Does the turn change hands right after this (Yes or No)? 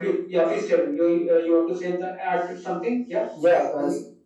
Yes